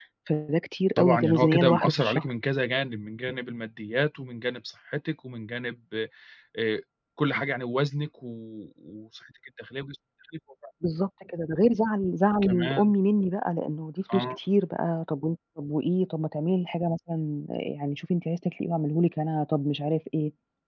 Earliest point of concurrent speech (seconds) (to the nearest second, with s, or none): 1 s